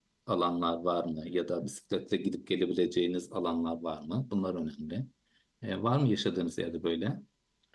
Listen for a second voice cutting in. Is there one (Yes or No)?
No